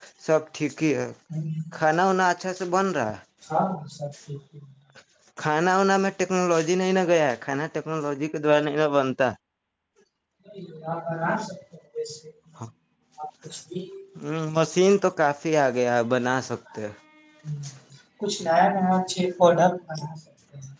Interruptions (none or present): none